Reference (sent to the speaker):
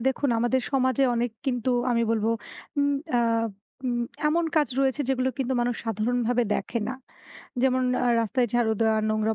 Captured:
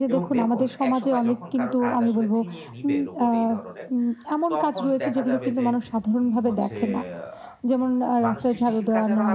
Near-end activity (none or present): present